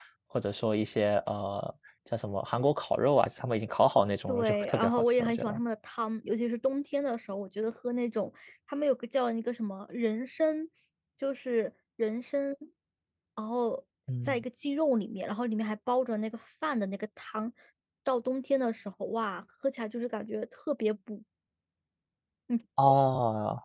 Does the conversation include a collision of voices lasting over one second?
Yes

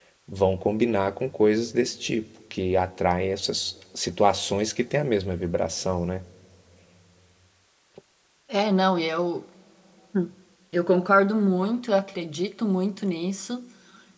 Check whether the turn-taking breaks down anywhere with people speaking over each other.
No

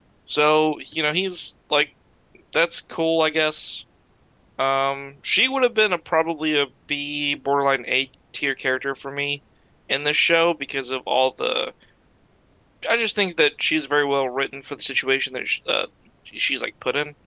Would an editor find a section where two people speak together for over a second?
No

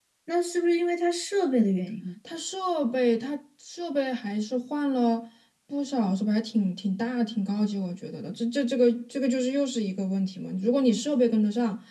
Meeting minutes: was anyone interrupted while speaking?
No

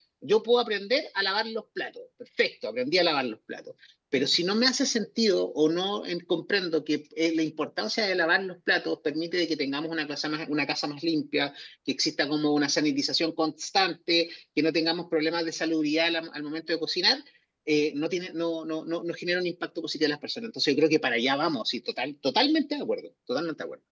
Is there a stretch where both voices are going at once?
No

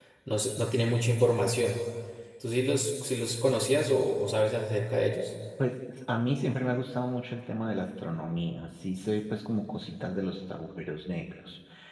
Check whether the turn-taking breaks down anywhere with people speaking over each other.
No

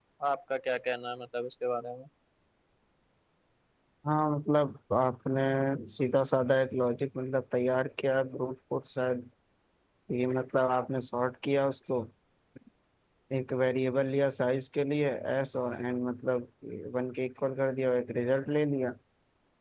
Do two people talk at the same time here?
No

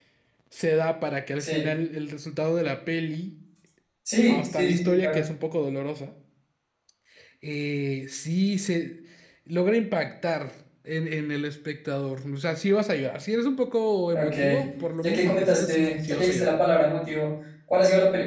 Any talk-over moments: Yes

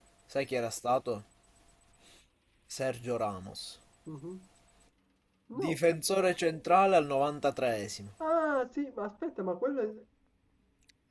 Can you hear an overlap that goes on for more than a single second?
No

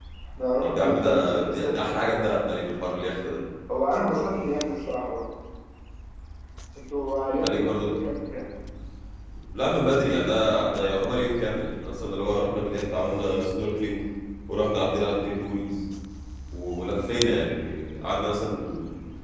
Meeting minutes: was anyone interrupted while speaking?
Yes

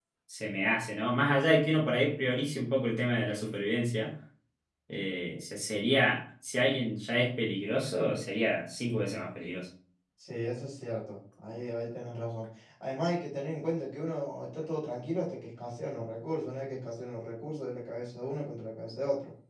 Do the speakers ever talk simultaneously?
No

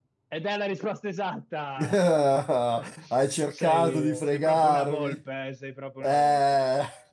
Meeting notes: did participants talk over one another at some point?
Yes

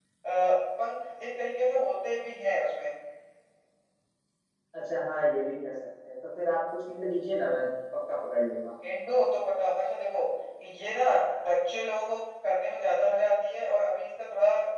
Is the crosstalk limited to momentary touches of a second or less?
Yes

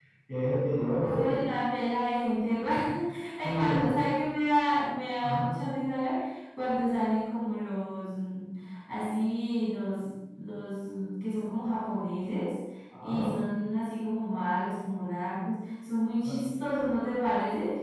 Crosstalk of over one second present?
No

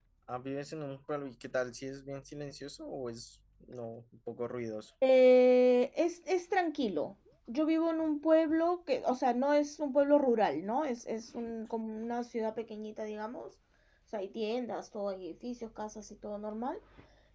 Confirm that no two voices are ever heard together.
Yes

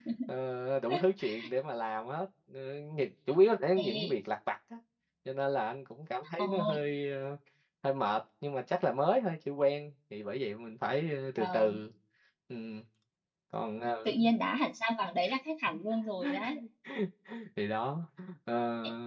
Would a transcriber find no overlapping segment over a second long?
Yes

